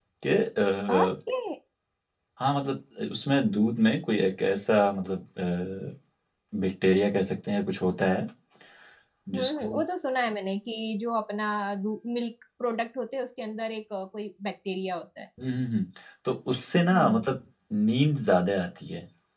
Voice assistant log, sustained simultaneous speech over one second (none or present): none